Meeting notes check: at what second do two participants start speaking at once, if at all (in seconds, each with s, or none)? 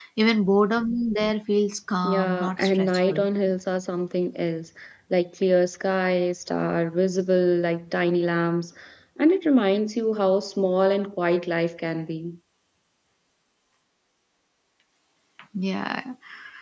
2.0 s